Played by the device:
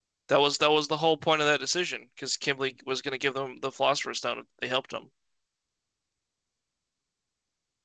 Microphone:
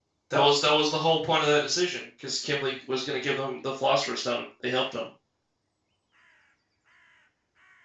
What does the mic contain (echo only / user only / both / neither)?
echo only